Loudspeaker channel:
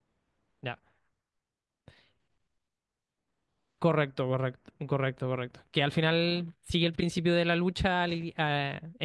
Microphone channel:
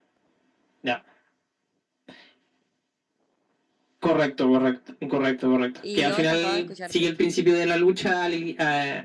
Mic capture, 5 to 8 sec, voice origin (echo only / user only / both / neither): both